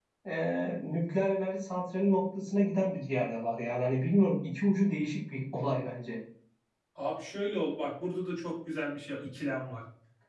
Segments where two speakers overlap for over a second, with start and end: none

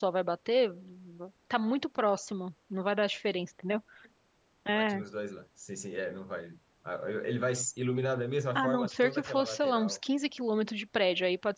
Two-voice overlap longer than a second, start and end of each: 8.6-10.0

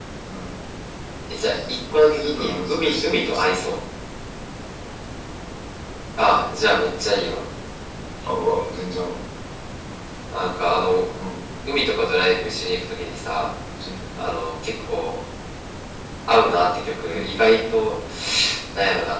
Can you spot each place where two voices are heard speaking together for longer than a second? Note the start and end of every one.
1.5-3.6

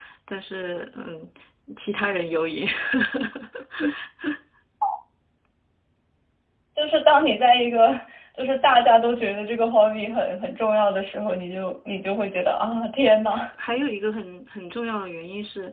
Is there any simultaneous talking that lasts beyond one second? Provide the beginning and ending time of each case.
none

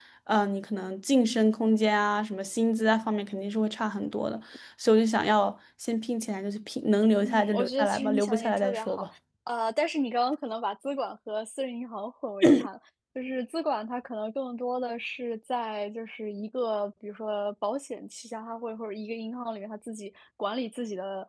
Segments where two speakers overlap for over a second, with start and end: 7.2-9.1

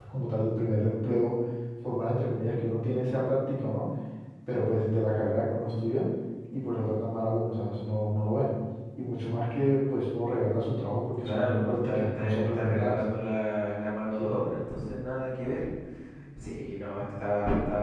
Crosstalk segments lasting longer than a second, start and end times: 11.2-13.0

